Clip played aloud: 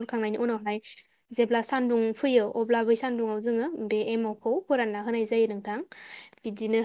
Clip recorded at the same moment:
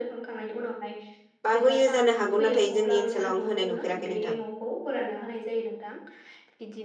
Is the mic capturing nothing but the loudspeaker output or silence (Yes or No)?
No